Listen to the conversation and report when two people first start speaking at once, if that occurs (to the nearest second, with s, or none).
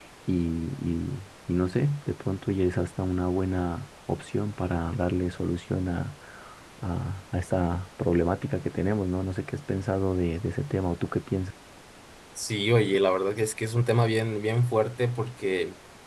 none